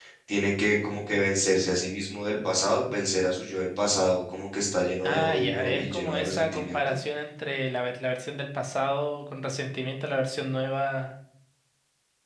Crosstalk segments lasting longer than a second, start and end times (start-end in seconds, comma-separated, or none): 5.0-7.0